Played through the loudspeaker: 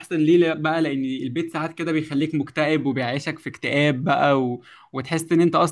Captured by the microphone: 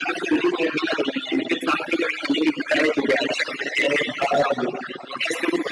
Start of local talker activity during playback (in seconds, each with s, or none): none